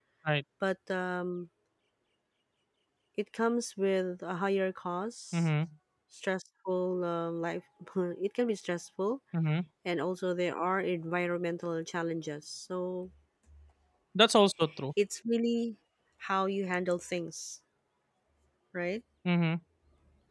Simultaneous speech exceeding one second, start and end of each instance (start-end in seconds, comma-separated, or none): none